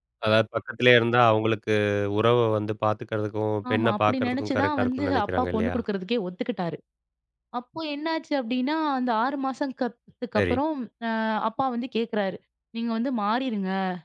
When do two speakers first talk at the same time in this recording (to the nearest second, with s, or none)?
4 s